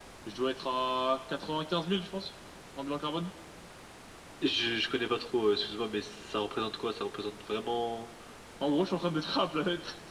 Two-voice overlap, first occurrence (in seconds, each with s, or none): none